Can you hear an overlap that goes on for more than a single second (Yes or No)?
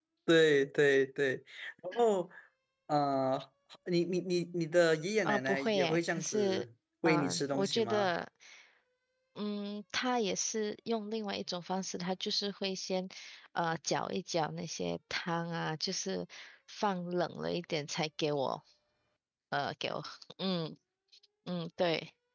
Yes